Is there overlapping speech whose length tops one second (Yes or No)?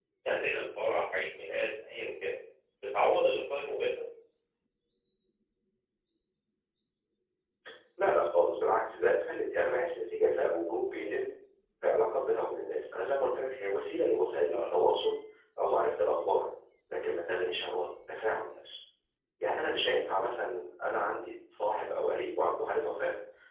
No